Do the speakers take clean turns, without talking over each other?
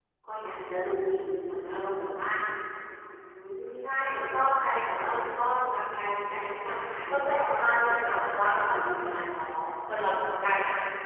No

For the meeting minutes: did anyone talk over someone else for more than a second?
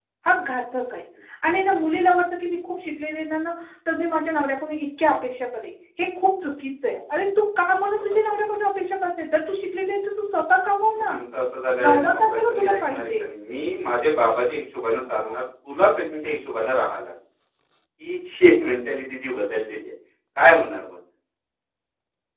Yes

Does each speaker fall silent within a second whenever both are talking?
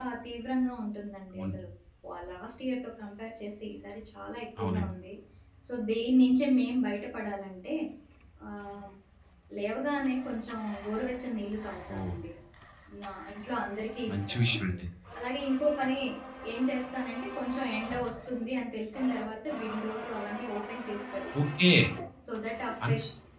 Yes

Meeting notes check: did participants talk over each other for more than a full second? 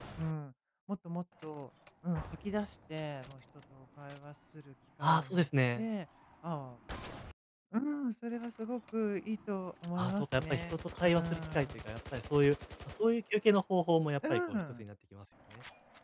Yes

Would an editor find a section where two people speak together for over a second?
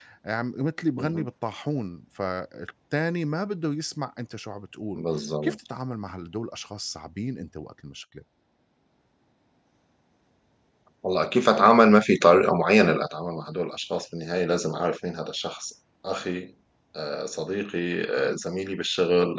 No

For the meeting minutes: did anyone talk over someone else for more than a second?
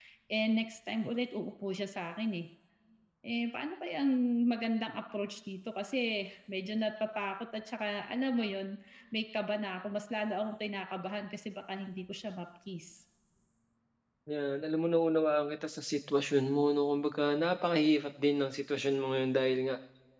No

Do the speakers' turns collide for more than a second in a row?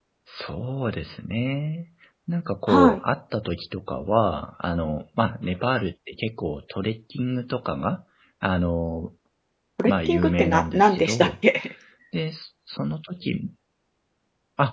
Yes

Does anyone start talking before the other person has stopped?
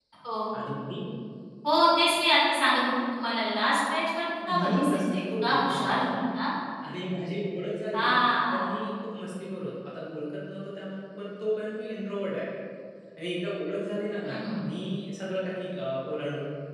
Yes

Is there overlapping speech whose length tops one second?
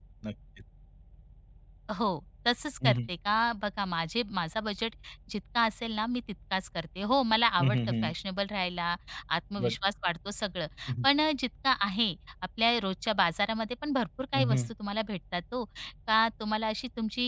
No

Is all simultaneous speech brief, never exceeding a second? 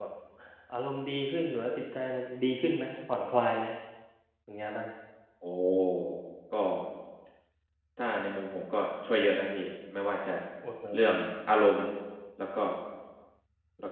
Yes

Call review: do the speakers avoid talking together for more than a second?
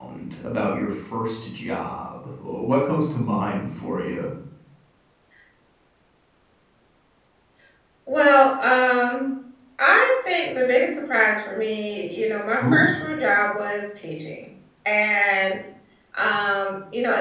Yes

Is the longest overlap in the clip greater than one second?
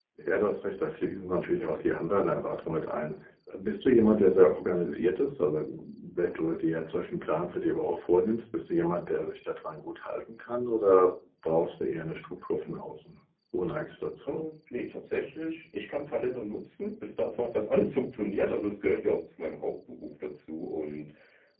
No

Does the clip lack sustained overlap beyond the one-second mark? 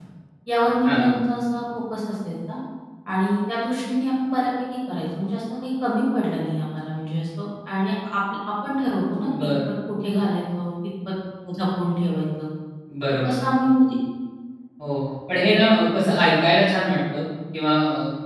Yes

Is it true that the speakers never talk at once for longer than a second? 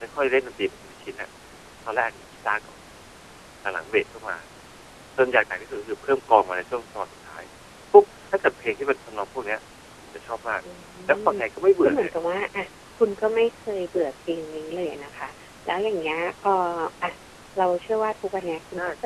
Yes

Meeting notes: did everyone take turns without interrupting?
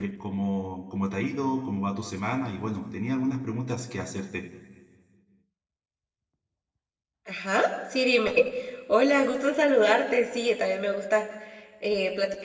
Yes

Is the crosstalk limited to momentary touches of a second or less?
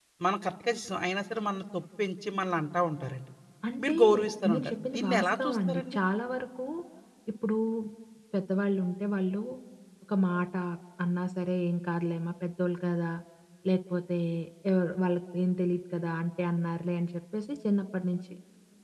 No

